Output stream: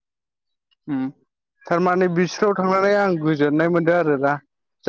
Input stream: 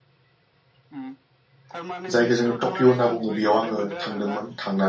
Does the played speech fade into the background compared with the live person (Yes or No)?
Yes